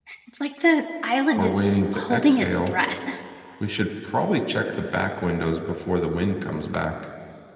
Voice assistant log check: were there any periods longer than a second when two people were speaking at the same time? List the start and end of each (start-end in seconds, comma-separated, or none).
1.4-2.7